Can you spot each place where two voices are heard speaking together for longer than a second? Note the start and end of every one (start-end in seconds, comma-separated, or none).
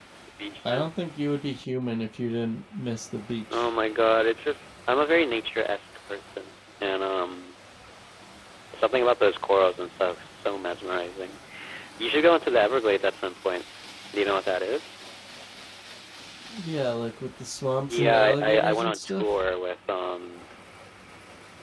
17.9-19.5